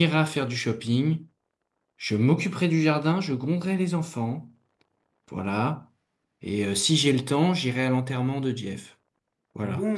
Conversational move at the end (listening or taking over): taking over